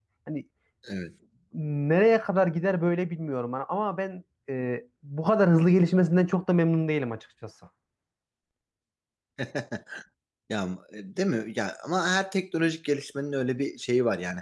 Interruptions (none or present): none